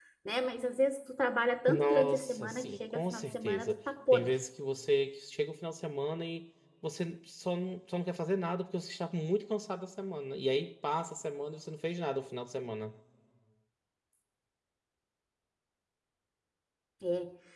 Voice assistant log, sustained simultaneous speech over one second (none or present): present